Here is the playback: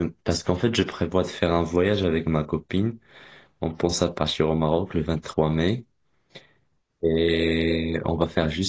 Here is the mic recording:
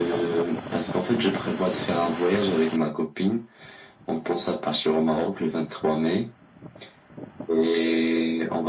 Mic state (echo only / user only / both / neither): echo only